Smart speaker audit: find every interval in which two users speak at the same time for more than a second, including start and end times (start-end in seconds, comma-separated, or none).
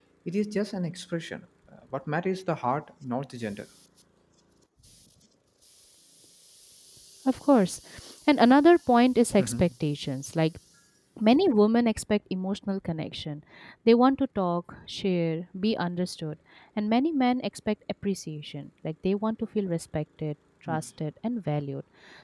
none